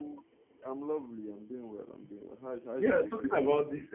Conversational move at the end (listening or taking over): taking over